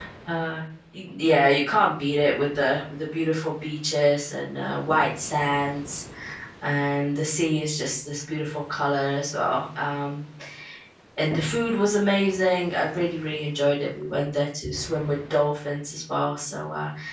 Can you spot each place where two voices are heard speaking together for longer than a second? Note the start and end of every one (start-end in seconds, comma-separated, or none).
none